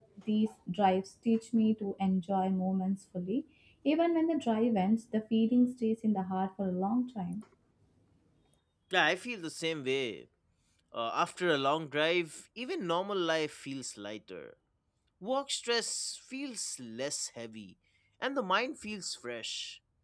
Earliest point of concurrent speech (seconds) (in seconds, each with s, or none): none